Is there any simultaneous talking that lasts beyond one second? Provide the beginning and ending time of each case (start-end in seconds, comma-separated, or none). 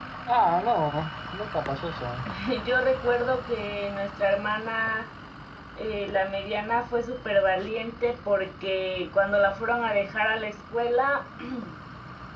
none